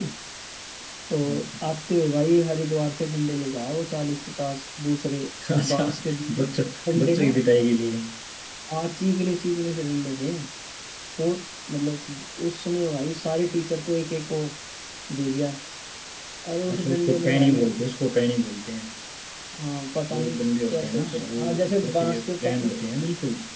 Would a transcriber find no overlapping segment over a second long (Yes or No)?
No